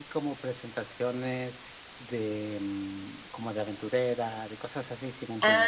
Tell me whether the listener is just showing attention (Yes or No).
No